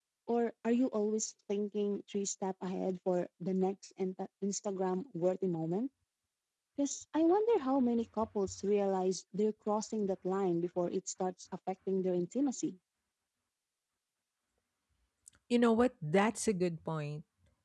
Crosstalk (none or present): none